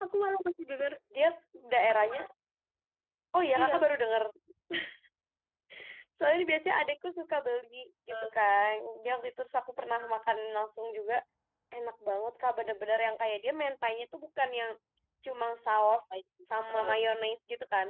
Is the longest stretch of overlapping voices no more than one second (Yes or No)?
Yes